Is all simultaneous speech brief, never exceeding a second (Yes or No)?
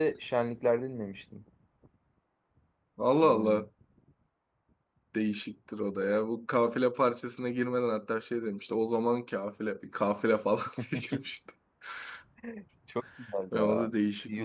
Yes